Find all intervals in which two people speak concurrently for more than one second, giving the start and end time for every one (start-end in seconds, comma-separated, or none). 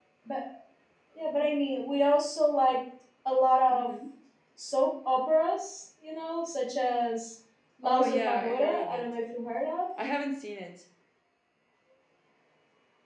7.8-9.1